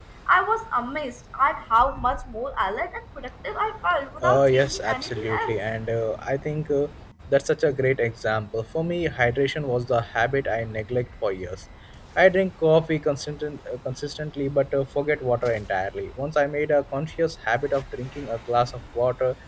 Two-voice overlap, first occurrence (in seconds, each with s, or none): 4.2 s